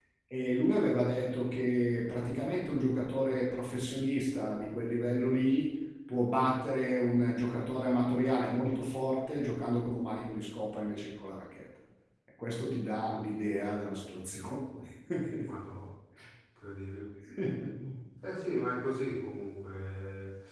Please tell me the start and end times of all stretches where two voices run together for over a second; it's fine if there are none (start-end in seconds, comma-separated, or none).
none